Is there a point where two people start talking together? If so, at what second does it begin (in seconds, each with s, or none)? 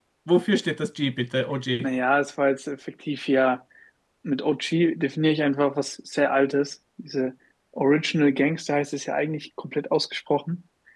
none